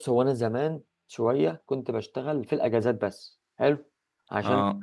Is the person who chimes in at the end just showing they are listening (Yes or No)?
Yes